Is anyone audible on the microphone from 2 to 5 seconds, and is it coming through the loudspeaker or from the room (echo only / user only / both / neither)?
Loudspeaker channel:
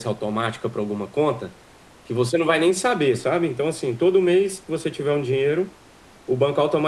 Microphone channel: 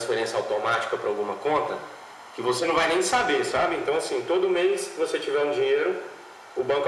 echo only